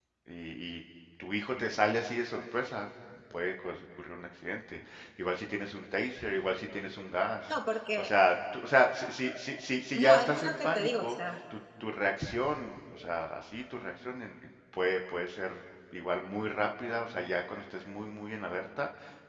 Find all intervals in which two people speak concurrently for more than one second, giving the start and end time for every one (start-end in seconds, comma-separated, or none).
9.9-11.2